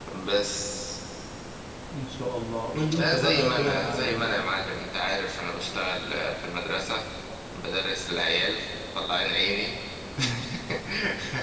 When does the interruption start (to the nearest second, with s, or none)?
3 s